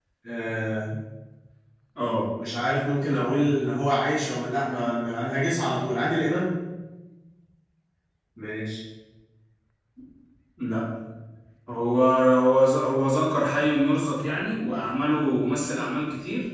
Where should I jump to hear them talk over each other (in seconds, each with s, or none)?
none